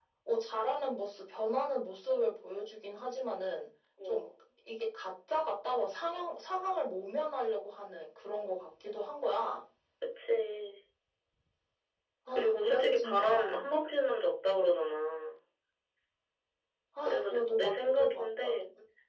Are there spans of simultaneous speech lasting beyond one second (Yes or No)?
Yes